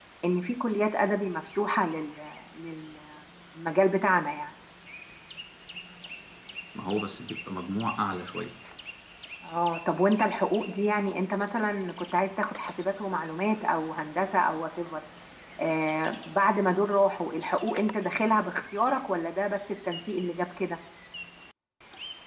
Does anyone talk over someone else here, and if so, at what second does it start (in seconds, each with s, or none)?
none